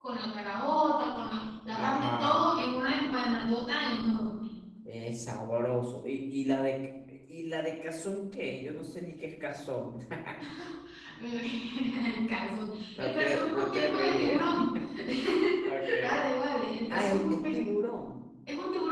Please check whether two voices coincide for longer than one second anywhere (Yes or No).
Yes